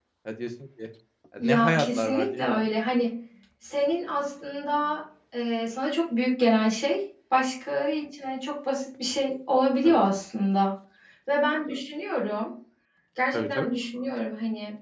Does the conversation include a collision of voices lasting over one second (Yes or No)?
Yes